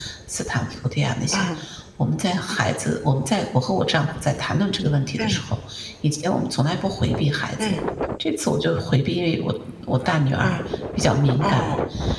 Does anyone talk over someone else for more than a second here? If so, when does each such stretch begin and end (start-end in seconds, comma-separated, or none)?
none